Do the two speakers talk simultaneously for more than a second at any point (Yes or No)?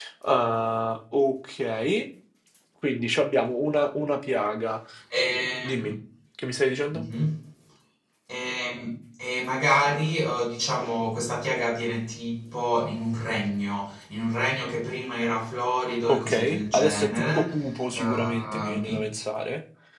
Yes